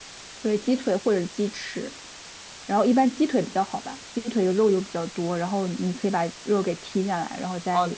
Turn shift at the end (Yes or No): Yes